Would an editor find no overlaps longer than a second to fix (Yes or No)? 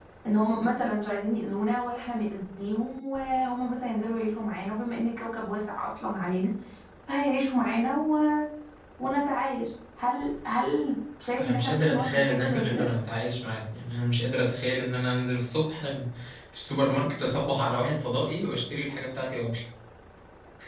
No